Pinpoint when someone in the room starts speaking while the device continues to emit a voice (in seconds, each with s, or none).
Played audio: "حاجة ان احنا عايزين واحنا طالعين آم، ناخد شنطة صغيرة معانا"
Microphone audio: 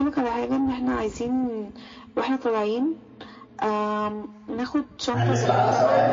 5.1 s